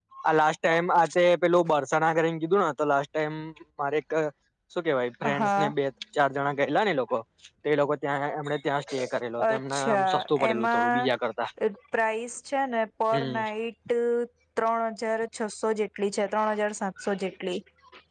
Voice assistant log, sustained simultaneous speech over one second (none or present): present